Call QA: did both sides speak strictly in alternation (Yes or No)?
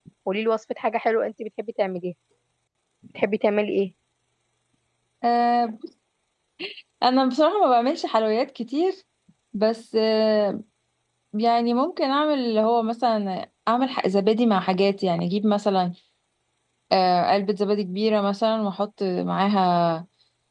Yes